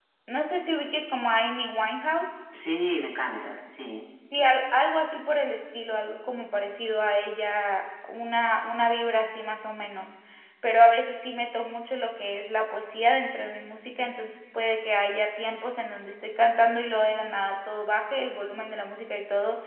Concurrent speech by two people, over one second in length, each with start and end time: none

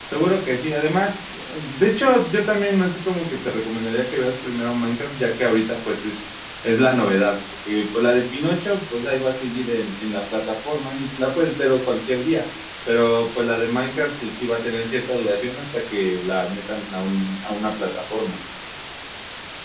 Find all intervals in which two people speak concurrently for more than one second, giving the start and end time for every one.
none

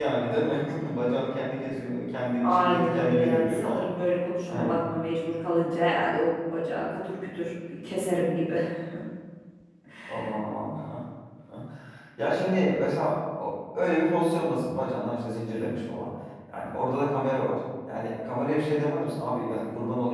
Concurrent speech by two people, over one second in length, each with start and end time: 2.4-3.9

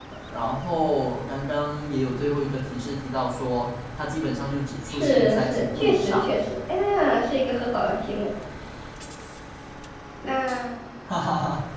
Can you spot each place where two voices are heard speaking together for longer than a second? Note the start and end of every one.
4.9-6.2

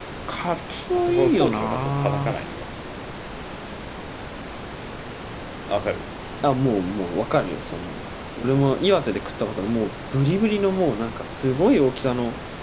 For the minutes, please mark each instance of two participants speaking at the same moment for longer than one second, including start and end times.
0.9-2.4

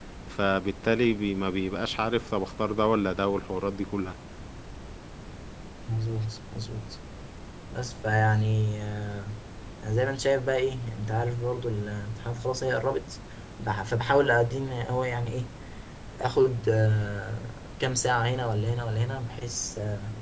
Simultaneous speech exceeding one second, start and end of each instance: none

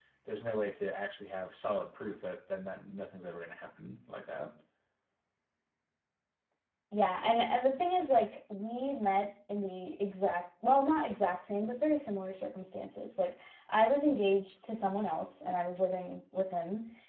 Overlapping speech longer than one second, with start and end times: none

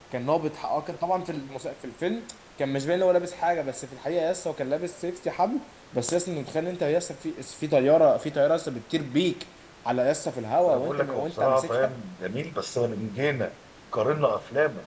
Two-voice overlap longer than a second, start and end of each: 10.7-11.9

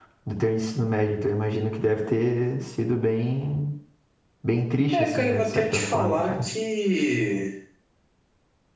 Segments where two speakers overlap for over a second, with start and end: 4.9-6.5

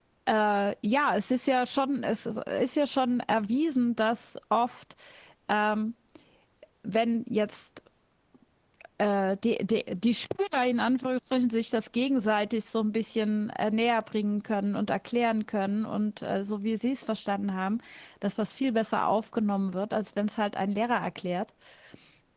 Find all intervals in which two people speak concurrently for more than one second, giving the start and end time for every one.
none

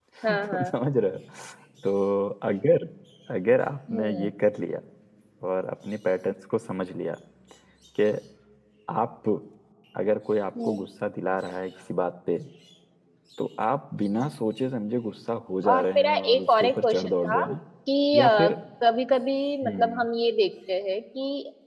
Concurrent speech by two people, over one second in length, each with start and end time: 15.7-17.5

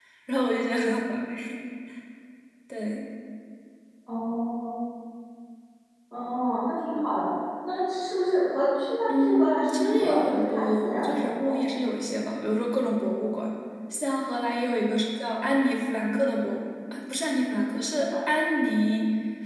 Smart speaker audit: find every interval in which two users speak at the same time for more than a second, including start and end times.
9.1-11.6

